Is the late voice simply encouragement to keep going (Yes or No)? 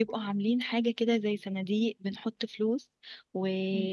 Yes